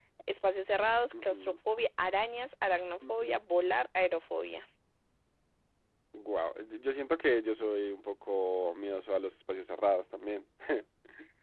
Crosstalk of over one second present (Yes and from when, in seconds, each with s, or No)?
No